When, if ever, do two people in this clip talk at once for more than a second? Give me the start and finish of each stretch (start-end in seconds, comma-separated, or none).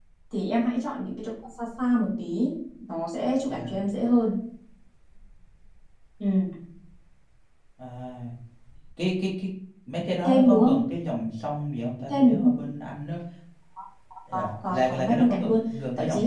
14.3-15.6